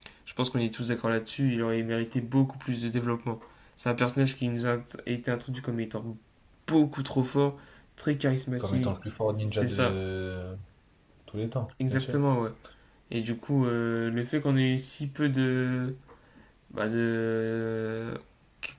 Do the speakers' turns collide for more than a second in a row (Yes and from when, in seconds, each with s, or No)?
No